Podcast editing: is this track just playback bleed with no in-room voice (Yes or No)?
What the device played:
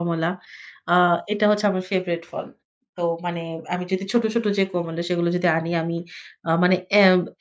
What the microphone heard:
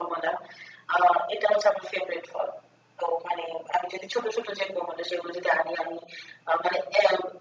Yes